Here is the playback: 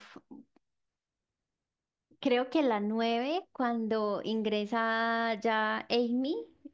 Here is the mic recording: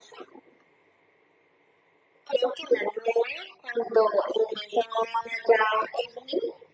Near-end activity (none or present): none